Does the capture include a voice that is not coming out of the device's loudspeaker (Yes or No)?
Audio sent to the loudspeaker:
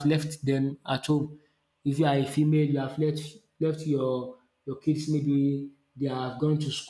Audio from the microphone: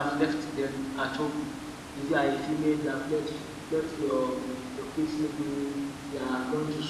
No